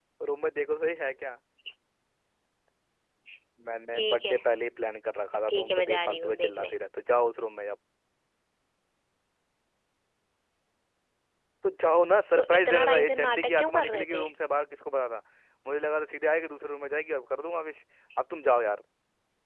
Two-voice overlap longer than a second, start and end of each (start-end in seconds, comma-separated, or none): 5.5-6.8, 12.3-14.2